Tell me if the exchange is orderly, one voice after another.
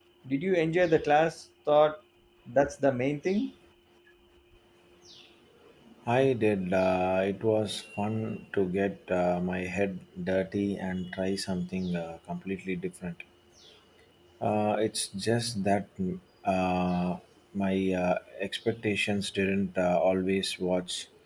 Yes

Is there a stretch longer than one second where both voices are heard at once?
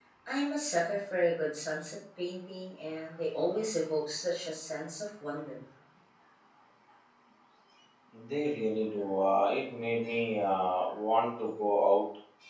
No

